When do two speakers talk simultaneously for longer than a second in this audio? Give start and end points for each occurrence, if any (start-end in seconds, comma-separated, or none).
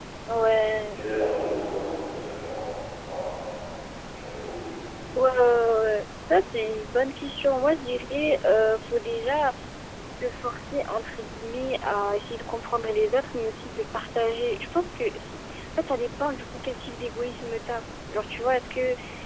none